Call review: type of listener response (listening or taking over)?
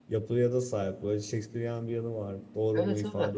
taking over